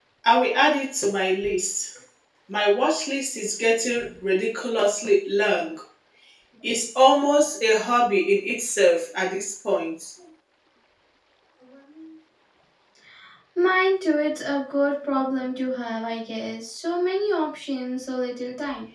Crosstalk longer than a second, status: none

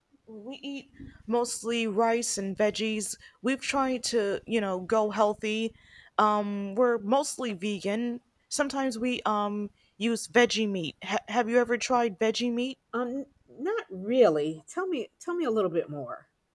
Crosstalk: none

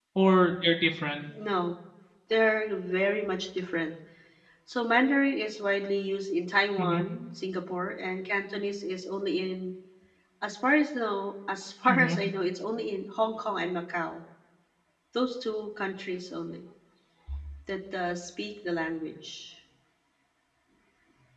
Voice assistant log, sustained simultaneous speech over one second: none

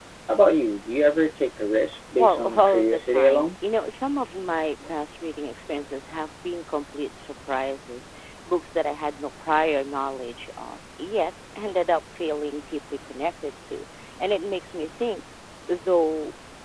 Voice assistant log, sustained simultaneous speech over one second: present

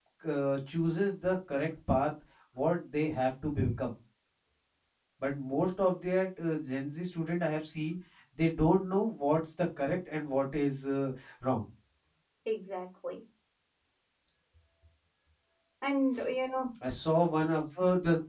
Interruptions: none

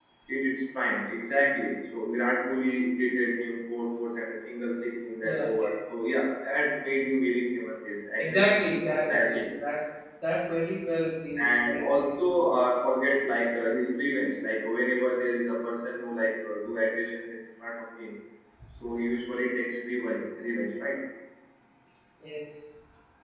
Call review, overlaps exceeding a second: present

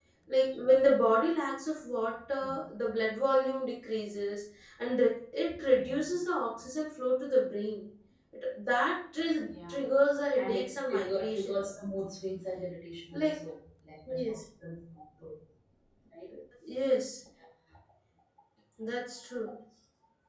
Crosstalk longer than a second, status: present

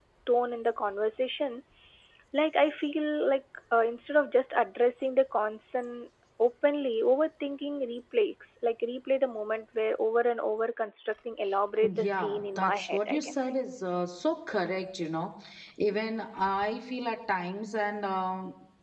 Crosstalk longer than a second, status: present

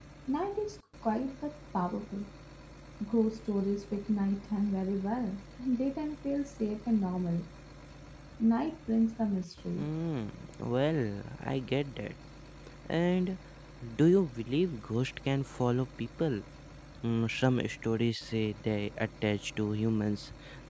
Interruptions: none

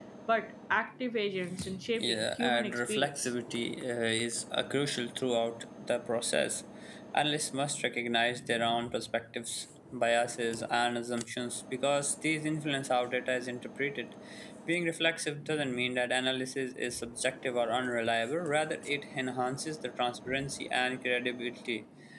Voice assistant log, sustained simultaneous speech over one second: present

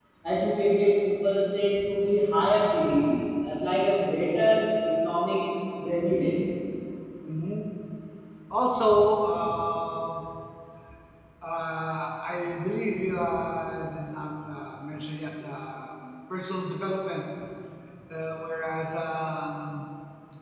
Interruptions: none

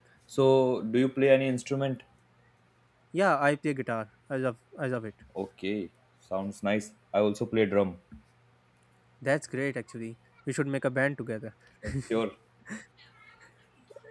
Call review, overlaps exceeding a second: none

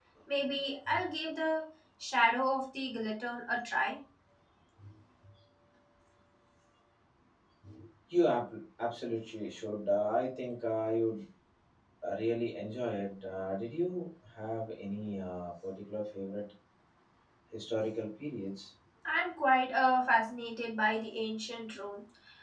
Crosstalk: none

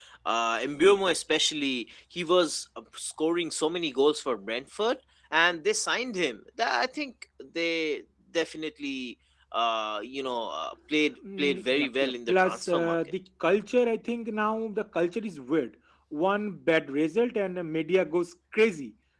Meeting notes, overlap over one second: present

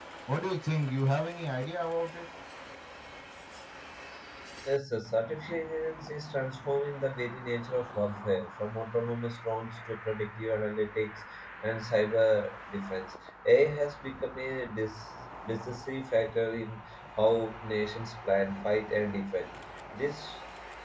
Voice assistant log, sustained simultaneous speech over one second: none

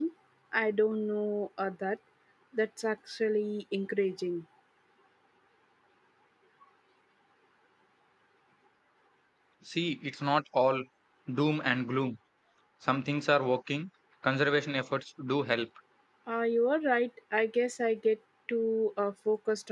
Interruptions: none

